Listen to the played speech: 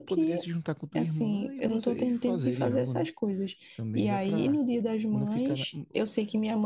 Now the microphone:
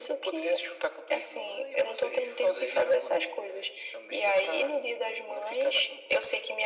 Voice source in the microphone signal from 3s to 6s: echo only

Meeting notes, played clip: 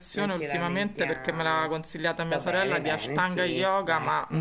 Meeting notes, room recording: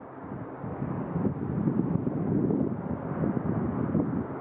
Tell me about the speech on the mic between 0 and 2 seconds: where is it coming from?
neither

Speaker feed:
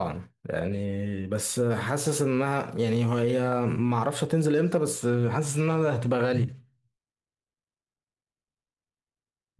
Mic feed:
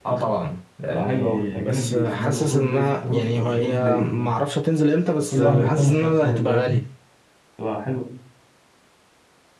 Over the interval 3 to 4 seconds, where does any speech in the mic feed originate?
both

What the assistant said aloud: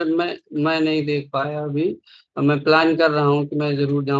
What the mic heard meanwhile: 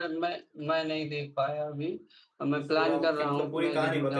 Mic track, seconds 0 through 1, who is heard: echo only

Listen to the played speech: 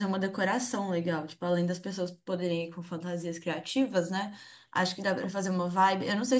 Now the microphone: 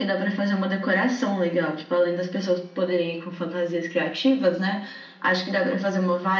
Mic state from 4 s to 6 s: echo only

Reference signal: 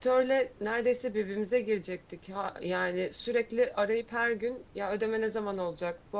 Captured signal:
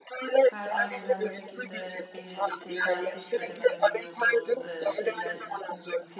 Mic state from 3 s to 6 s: both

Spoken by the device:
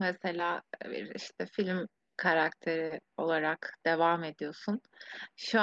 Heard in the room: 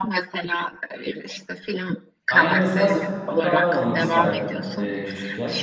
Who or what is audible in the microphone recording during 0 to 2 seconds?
echo only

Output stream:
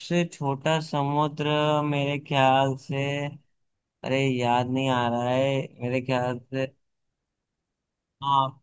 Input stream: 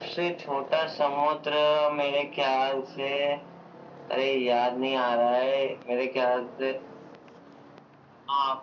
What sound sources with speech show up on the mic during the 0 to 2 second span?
echo only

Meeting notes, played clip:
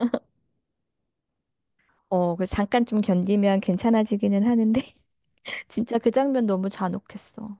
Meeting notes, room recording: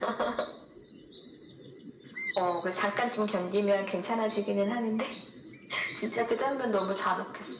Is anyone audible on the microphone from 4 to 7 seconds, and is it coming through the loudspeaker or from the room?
echo only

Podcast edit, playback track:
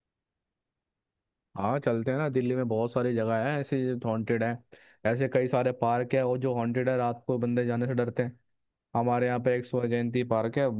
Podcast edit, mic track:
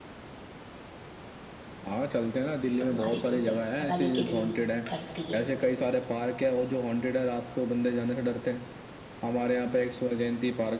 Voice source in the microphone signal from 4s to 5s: both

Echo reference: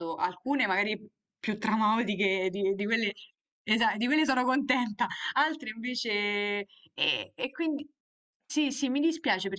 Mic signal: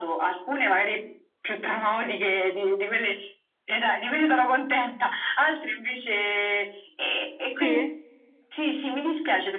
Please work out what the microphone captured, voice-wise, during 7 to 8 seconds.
both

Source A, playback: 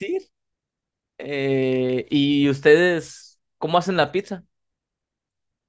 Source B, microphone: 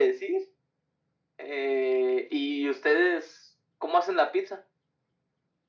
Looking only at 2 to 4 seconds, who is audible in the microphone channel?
echo only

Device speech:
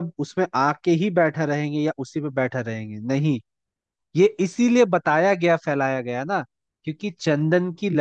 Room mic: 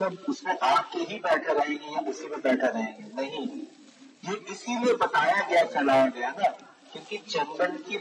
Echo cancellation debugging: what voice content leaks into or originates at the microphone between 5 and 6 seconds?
echo only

